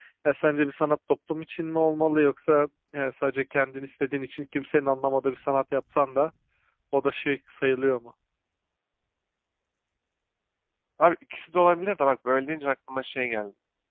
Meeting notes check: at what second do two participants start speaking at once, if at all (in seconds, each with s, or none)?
none